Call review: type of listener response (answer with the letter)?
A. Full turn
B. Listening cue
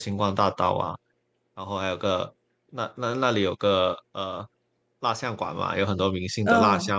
B